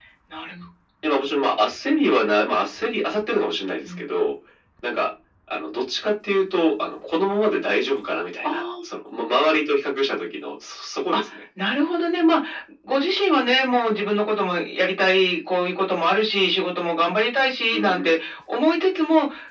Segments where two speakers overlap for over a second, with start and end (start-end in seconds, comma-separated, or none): none